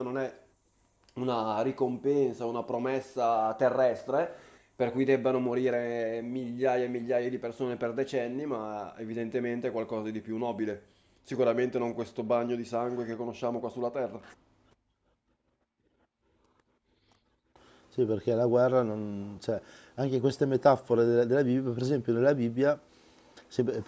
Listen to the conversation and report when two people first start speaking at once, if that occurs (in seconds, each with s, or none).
none